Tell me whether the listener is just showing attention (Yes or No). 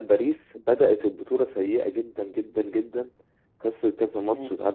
Yes